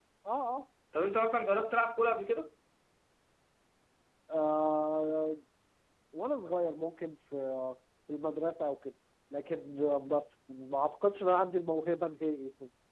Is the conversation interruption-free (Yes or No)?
Yes